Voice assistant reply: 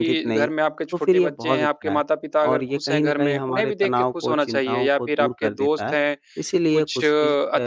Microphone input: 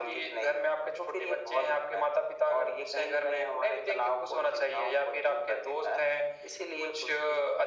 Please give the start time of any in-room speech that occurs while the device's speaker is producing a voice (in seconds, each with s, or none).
none